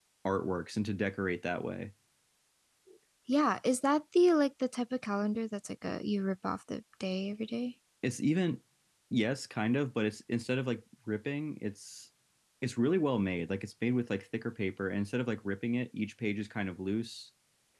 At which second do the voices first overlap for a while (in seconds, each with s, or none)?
none